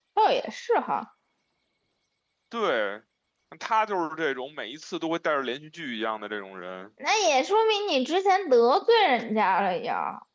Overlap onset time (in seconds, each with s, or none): none